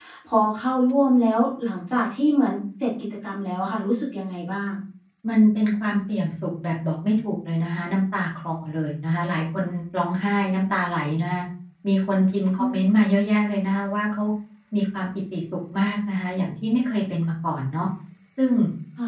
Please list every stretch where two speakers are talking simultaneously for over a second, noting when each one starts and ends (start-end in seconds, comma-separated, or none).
none